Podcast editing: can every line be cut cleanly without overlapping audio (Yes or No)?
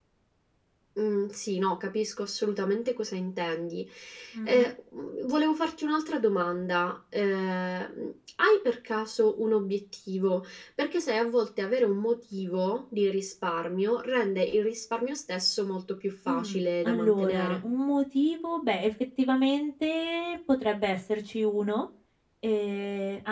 No